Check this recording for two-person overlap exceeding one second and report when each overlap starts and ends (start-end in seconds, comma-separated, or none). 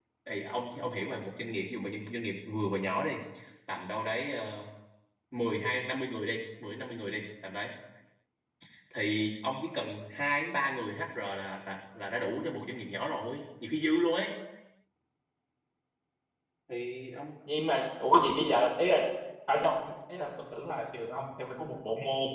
none